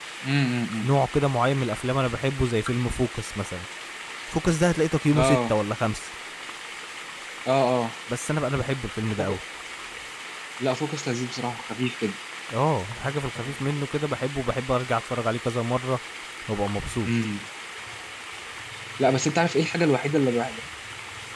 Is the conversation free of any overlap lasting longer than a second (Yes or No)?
Yes